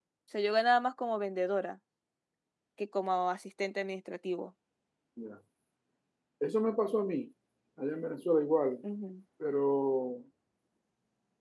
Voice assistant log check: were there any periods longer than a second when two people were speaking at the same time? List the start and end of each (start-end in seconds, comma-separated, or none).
none